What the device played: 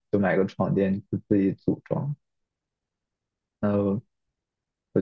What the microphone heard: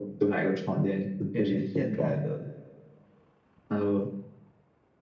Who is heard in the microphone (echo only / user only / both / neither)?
both